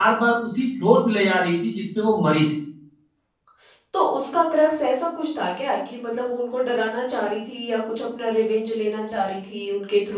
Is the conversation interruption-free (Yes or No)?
Yes